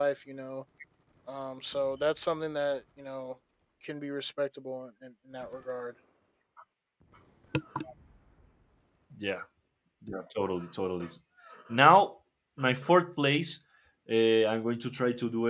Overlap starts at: none

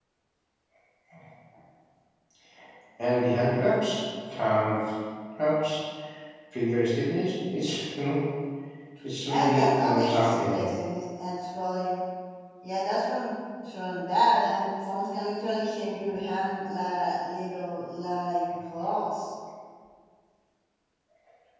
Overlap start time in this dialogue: 9.3 s

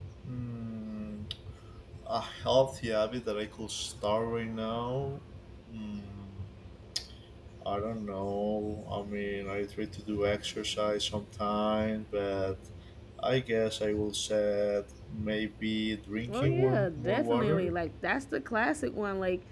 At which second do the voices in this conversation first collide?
16.3 s

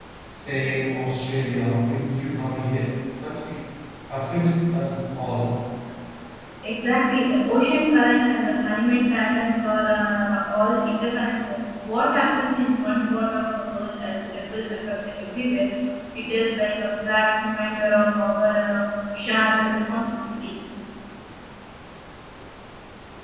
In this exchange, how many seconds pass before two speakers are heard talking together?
none

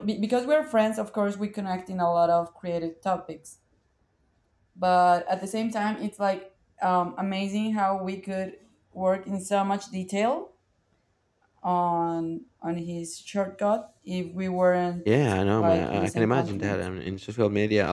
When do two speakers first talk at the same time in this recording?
15.6 s

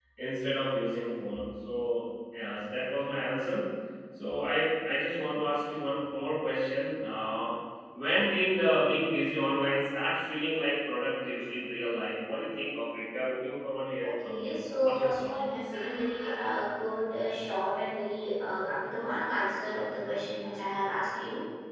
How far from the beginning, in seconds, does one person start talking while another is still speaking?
14.0 s

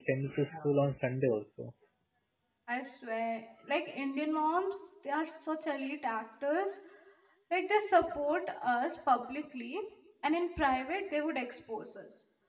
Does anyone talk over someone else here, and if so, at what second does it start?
none

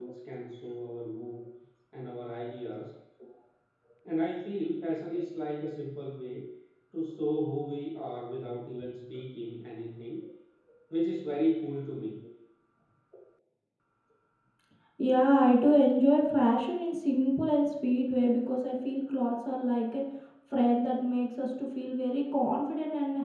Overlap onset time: none

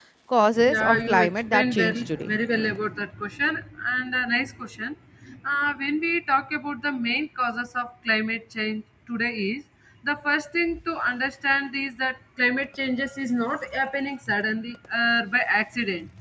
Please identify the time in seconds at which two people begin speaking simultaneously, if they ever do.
0.7 s

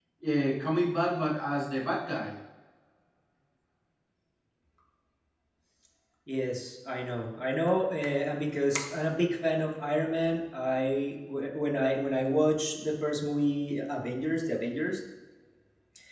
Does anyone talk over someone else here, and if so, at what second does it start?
none

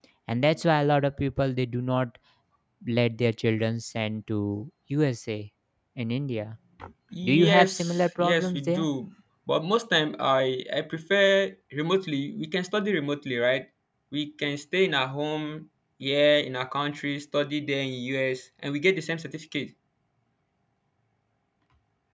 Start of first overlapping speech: 7.2 s

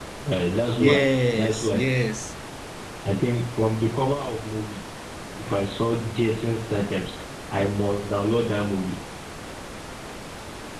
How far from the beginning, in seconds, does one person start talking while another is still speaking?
0.8 s

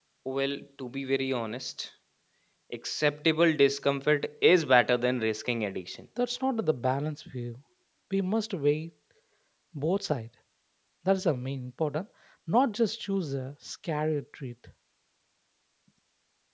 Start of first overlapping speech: none

